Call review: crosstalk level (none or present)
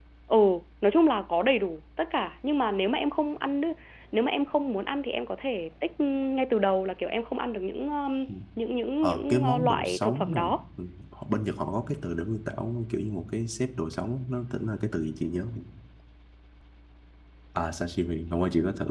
present